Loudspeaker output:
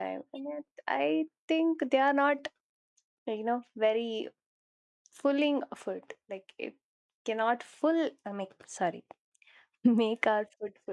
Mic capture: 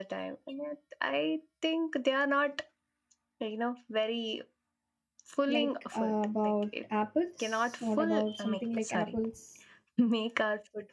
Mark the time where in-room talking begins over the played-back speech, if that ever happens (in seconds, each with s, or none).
5.5 s